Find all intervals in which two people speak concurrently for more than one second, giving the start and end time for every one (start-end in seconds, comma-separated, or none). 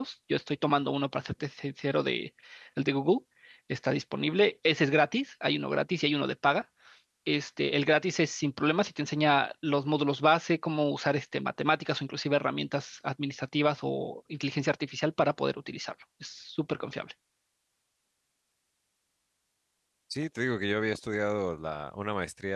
none